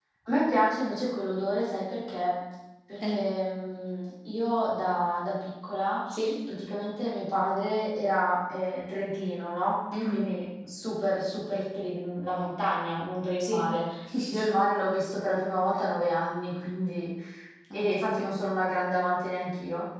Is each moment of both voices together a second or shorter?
Yes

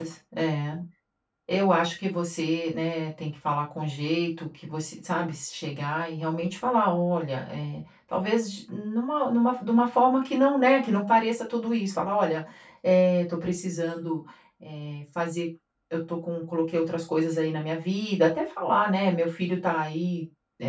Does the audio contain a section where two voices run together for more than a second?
No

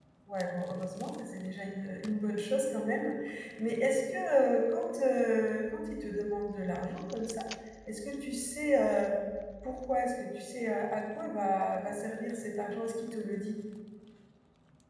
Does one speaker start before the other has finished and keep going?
No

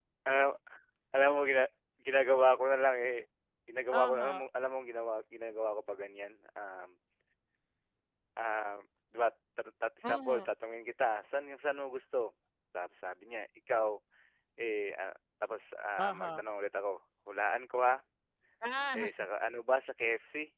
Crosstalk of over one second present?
No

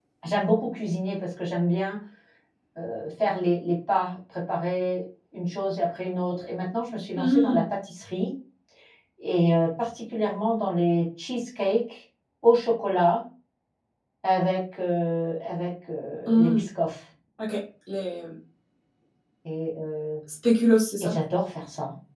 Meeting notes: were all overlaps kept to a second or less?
Yes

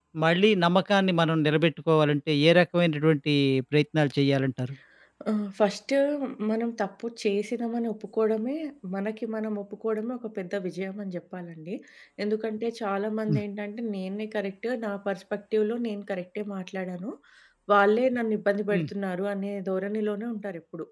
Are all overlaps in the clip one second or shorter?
Yes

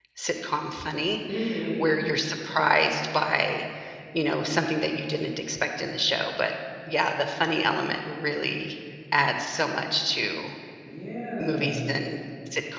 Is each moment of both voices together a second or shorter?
Yes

